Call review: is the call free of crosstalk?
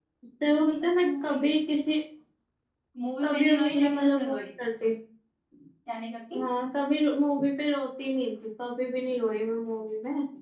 No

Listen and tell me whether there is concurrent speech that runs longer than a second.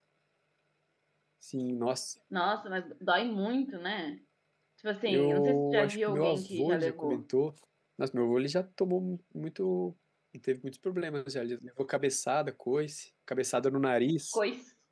Yes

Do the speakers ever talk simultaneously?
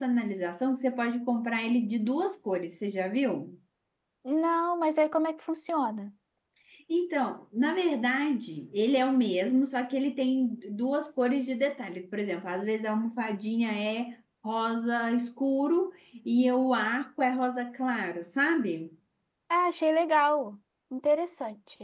No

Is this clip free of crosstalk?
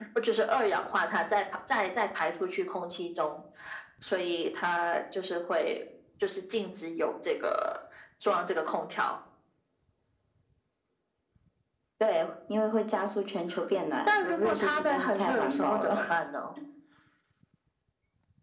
No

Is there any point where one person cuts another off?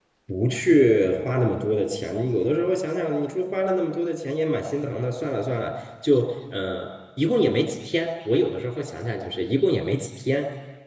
No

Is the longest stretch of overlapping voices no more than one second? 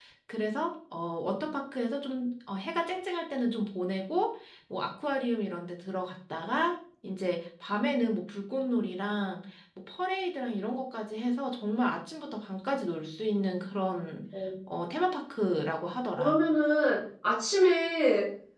Yes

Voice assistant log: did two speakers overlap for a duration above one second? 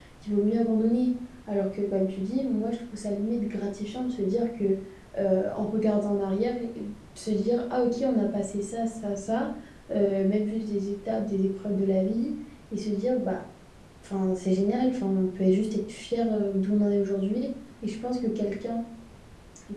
No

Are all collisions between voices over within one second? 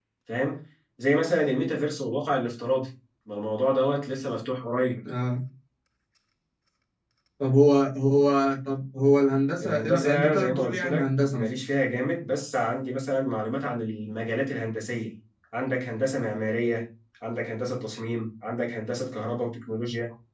No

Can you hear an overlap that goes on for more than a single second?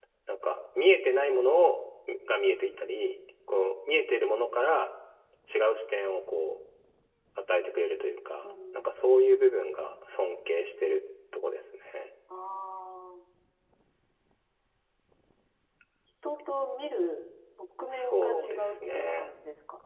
Yes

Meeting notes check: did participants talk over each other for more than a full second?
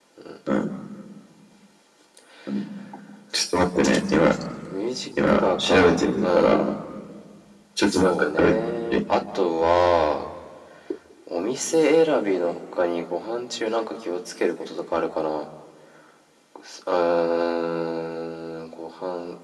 Yes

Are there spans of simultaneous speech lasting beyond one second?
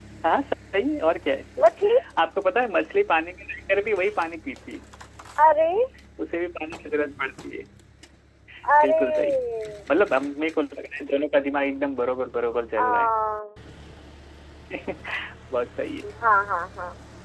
No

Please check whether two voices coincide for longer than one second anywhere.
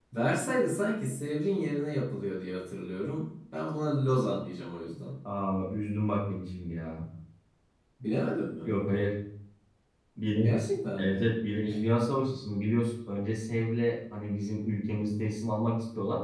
No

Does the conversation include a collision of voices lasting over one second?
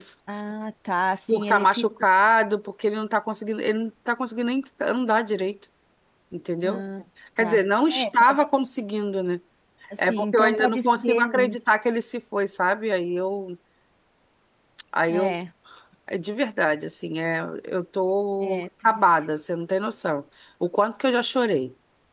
Yes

